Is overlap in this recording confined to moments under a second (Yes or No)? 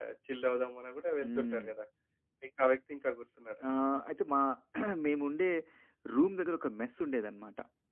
Yes